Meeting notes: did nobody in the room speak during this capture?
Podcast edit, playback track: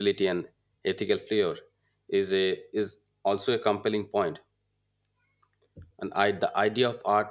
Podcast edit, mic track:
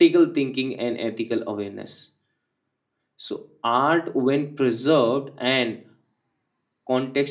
No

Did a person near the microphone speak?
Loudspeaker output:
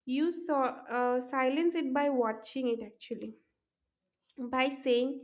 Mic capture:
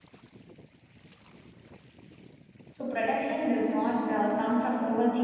Yes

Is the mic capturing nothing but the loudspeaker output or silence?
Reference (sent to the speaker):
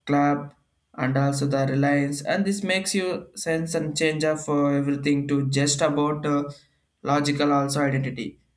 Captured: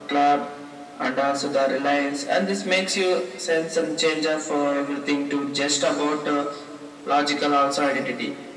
Yes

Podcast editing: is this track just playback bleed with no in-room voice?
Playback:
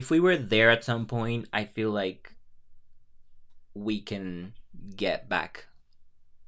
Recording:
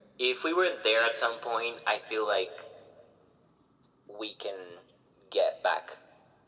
Yes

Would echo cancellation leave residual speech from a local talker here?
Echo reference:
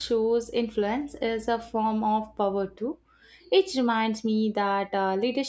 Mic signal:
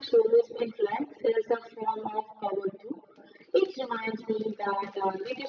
No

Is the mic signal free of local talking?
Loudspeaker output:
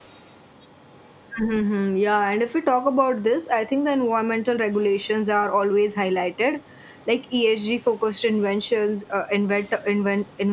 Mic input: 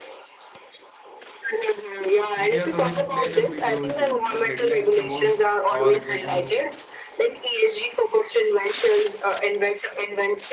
No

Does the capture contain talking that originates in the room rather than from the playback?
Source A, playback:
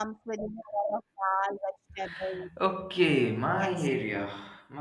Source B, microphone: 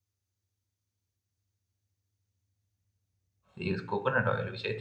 Yes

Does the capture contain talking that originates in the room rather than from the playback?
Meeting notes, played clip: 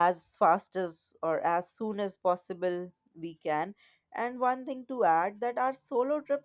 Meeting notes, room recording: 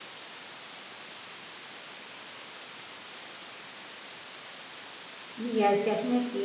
Yes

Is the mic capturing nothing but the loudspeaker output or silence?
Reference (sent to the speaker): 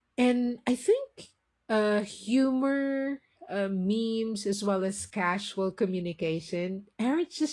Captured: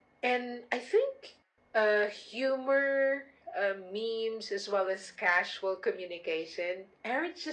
Yes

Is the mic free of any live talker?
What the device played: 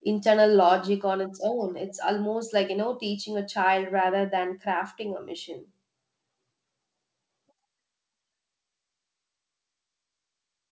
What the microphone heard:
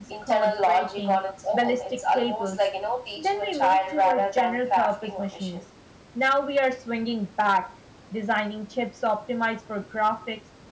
No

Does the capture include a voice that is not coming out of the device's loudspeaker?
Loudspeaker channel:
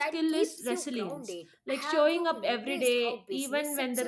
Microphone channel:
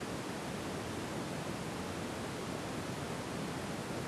No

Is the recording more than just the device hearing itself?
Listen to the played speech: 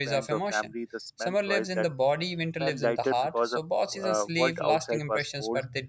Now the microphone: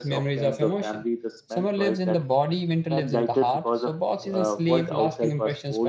No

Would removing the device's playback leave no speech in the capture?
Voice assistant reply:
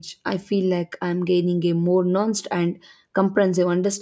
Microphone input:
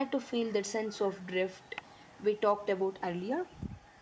No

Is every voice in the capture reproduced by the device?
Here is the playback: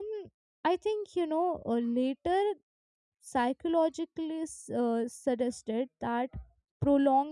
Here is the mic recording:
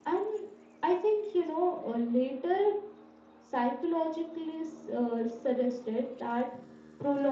Yes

